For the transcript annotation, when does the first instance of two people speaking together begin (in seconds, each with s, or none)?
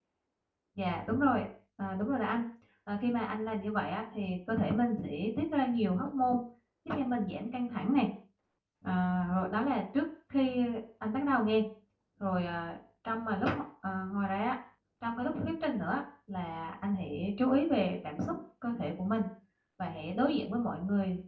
none